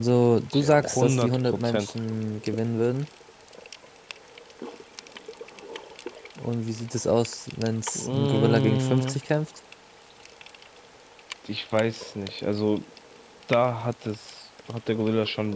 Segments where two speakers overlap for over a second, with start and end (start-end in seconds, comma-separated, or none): 0.6-1.9, 8.0-9.2